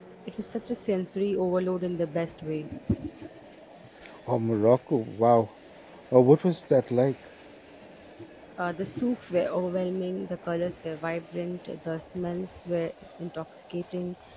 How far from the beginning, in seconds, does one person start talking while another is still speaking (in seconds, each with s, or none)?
none